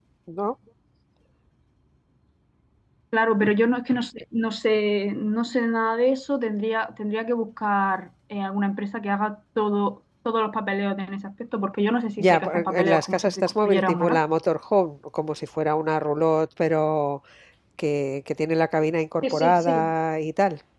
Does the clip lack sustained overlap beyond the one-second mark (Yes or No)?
No